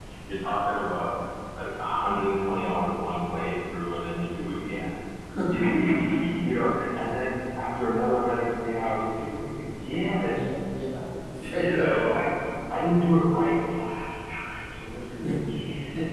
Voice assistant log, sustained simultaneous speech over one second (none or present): none